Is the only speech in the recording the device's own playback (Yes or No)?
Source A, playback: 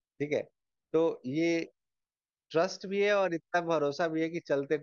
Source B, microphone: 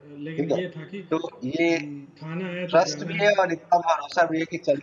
No